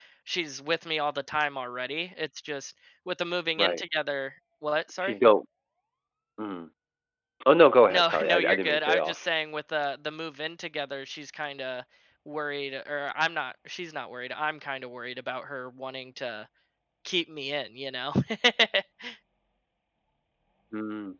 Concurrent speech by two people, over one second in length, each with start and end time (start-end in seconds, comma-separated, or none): 7.9-9.2